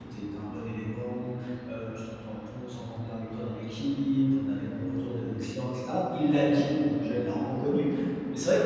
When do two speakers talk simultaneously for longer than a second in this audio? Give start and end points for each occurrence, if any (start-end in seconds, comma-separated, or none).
none